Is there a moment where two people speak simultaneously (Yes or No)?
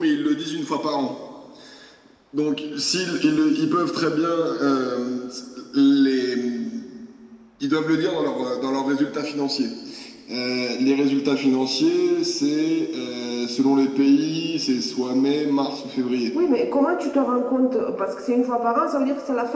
No